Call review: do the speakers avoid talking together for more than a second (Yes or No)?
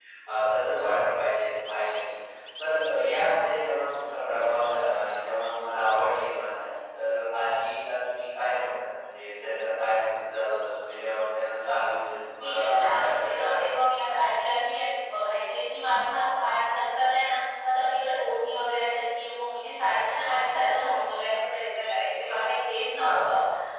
No